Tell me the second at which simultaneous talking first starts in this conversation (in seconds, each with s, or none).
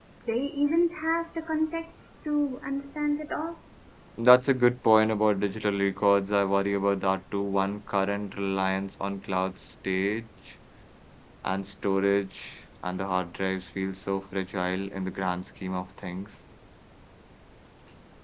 none